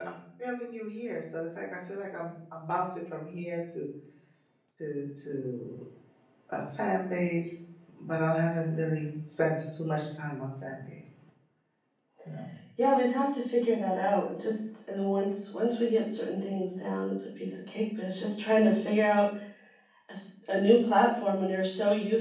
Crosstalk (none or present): none